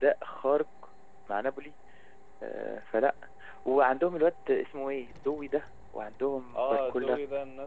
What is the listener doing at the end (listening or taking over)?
taking over